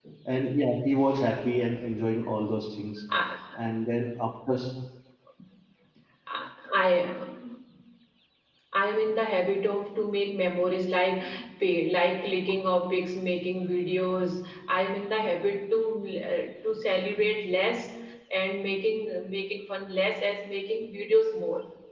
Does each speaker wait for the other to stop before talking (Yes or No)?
Yes